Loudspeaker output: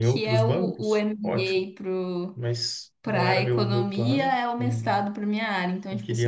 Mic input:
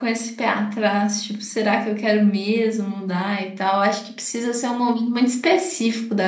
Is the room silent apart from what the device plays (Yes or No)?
No